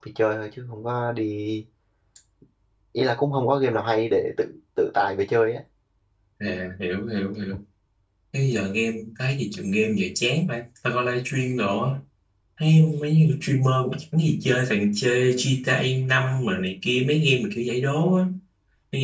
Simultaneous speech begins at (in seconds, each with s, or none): none